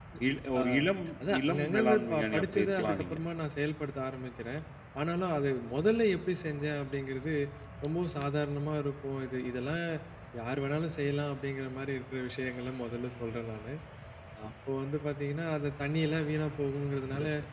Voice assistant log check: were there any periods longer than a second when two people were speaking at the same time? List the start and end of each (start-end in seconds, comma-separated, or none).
1.5-3.2